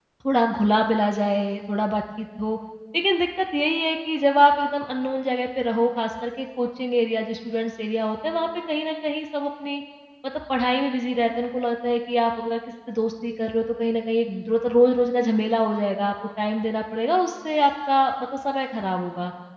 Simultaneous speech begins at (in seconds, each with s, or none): none